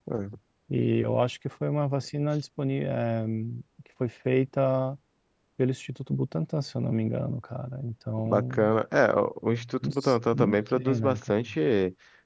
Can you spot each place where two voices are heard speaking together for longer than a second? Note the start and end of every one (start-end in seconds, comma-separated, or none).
9.8-11.4